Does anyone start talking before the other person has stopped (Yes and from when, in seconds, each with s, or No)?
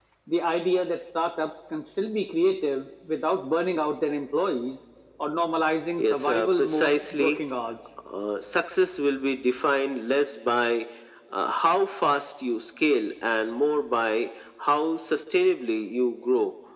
Yes, from 6.0 s